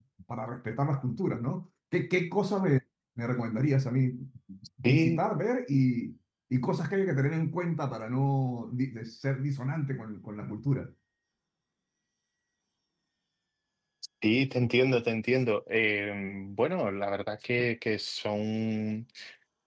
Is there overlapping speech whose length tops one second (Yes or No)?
No